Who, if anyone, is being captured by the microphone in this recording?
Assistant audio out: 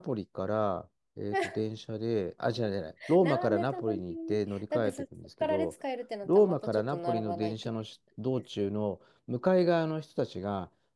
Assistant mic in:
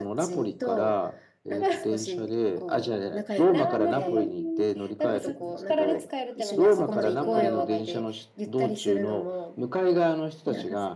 both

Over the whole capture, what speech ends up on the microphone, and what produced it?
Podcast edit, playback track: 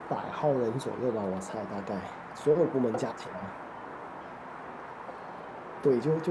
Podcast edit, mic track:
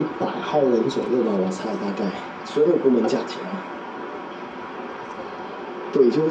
echo only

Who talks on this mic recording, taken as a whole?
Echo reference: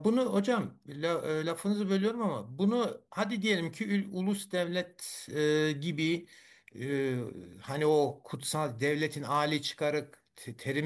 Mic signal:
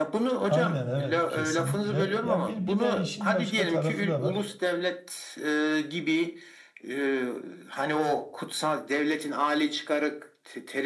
both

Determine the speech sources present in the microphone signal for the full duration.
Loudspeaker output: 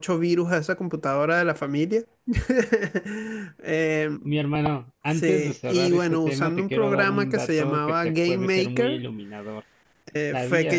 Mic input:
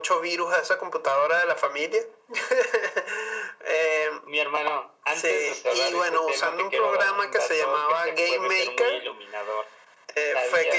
echo only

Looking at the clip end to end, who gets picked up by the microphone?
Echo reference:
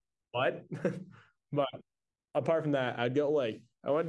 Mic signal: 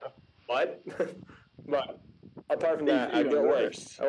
both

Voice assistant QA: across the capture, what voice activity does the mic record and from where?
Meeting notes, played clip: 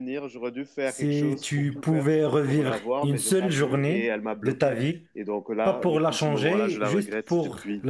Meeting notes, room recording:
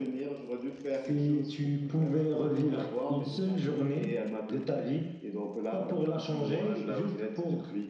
echo only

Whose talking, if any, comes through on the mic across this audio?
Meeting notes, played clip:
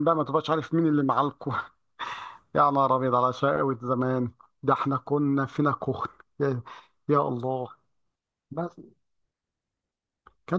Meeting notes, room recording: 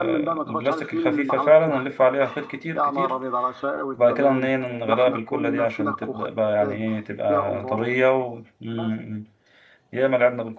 both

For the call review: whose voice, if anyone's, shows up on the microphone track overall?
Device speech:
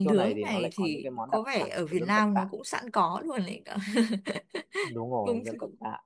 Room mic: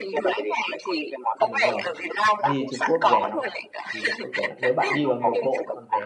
both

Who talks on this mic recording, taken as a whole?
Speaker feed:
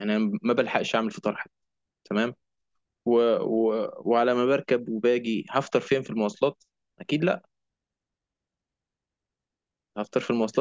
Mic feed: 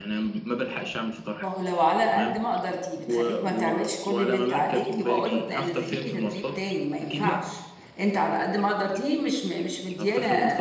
both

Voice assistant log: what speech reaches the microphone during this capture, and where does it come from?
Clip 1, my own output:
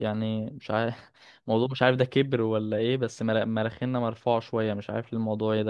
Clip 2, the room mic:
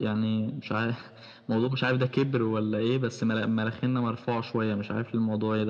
echo only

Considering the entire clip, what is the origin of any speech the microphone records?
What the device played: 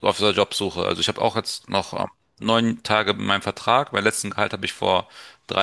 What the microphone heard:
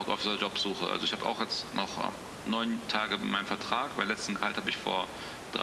echo only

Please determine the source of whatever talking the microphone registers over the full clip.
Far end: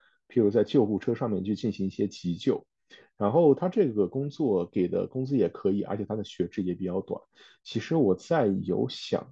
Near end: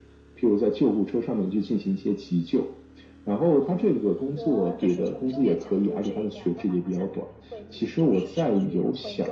both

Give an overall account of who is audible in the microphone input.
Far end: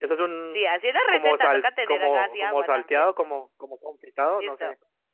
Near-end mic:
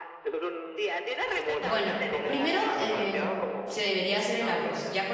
both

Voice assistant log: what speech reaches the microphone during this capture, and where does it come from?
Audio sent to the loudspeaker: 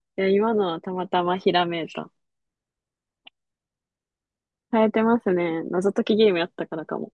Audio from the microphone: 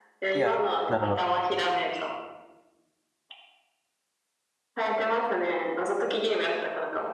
both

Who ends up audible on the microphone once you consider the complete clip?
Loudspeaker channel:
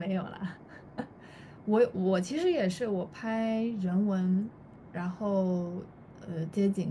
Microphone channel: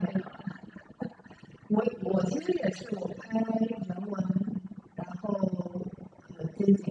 echo only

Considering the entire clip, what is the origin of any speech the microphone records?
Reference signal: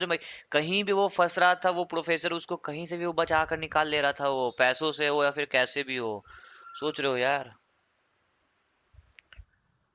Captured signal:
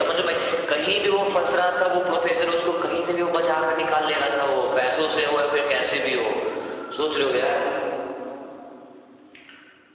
echo only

